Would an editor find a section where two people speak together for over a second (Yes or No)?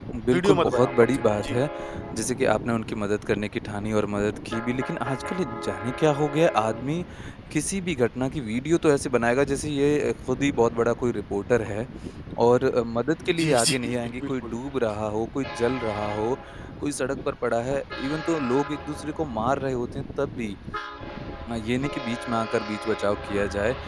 Yes